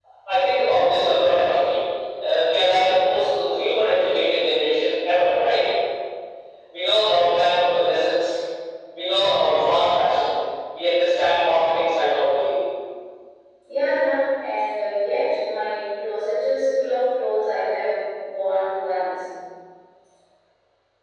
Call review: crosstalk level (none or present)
none